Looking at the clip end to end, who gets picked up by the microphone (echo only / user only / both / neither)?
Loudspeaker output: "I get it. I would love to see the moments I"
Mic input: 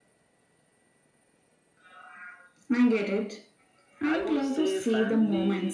both